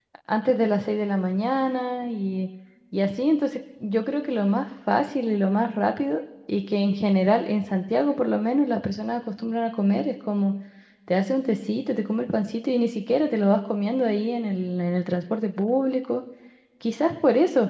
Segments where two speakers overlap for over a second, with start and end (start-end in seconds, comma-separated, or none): none